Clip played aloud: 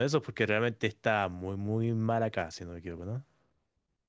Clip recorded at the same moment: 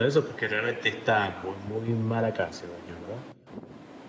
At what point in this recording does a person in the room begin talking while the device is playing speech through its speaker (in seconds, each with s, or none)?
none